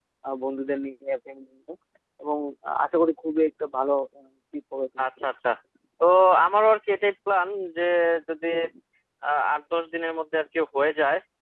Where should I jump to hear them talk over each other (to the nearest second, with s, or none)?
none